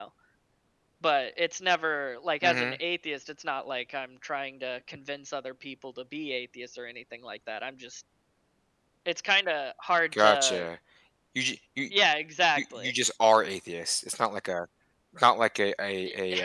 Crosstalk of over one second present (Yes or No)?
No